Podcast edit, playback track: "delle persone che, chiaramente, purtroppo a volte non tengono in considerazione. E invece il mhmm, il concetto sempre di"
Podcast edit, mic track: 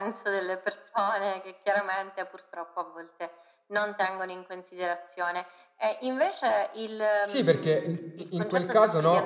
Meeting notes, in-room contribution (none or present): present